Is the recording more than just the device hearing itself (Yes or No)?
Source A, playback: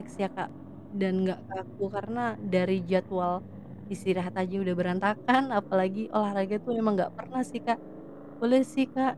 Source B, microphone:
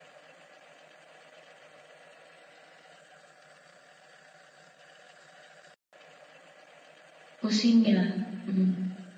Yes